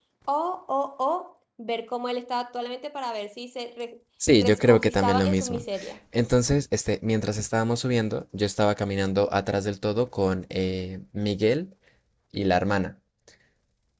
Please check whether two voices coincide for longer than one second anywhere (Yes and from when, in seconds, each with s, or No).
Yes, from 4.2 s